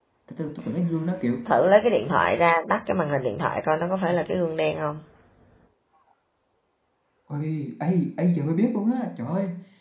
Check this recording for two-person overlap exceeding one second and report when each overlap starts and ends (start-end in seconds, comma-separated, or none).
none